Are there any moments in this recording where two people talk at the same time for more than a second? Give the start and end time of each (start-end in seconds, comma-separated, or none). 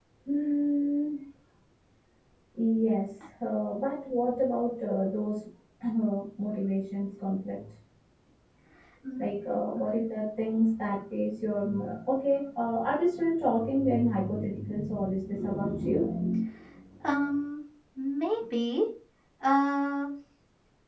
none